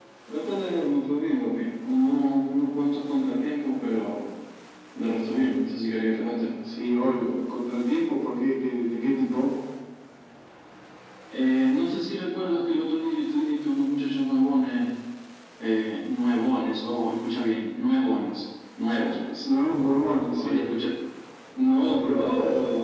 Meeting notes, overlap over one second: none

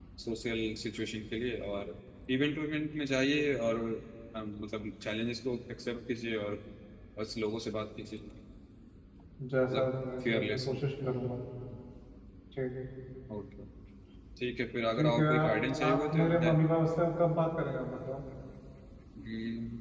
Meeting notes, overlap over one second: present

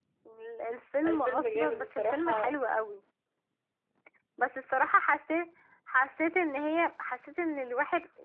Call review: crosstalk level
present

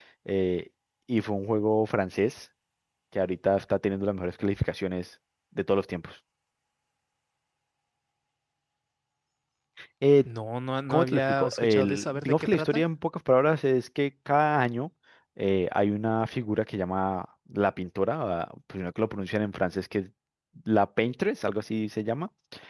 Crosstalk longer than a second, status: present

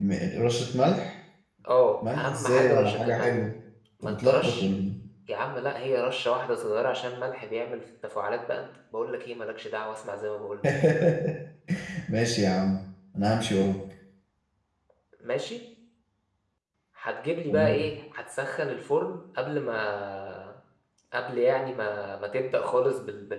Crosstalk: present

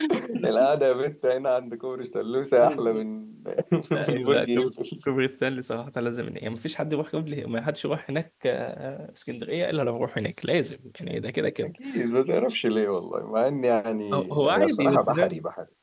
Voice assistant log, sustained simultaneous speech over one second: present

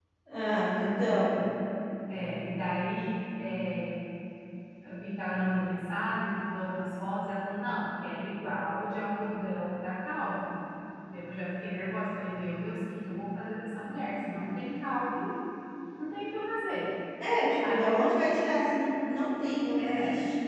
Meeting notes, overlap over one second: none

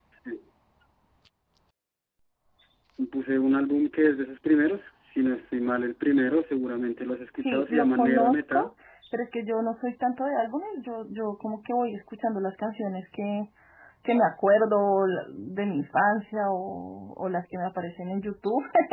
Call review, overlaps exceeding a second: present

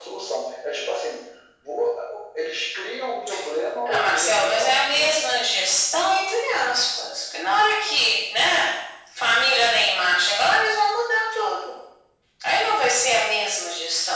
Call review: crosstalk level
present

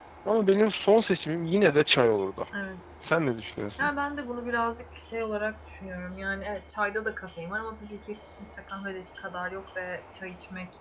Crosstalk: none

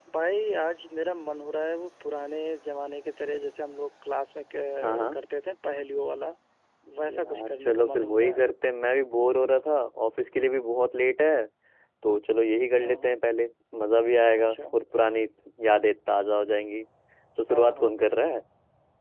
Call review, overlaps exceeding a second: present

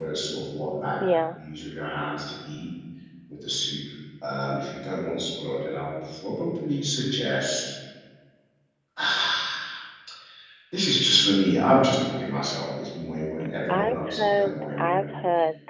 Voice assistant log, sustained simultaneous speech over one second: present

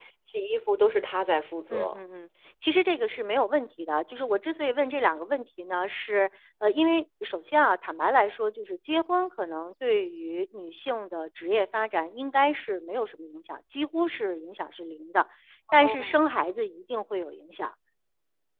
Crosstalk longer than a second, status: none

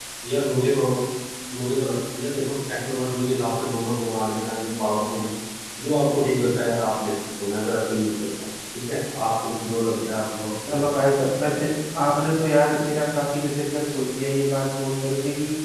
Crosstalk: none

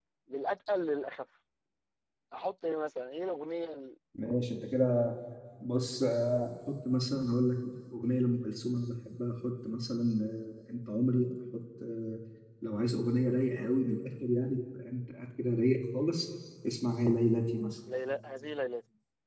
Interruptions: none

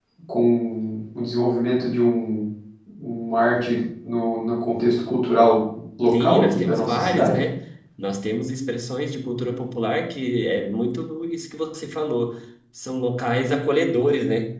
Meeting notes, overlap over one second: present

